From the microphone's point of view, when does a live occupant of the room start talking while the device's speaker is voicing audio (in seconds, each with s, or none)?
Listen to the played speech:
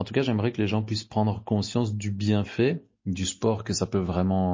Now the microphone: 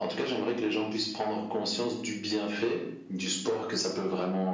none